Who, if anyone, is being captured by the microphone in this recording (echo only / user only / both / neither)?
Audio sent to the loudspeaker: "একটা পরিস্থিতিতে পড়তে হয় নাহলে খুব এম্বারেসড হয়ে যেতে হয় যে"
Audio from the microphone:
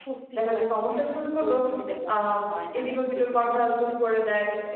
both